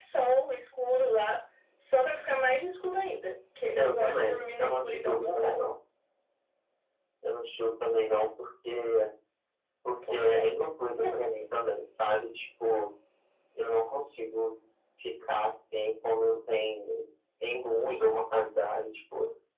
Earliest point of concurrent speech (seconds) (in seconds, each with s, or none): 3.8 s